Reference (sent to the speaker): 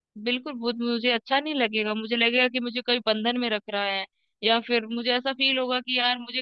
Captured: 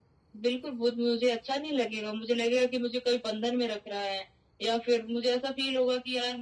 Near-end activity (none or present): none